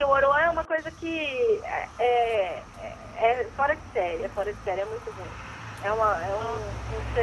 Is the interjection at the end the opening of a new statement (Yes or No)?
No